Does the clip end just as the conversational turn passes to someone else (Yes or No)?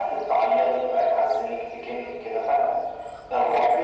No